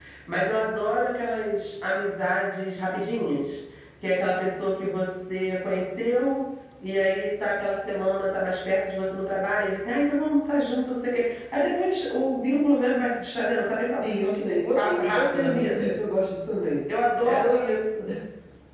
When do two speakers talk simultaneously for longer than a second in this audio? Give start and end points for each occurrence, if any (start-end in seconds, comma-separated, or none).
14.0-15.9